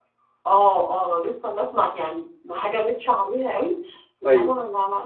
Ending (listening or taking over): listening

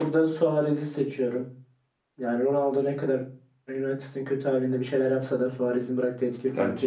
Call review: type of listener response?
taking over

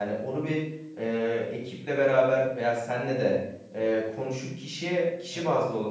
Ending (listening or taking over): listening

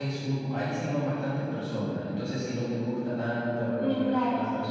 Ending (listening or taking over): taking over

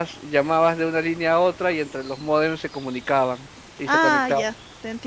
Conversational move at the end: taking over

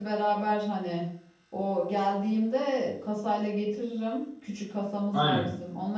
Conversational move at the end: listening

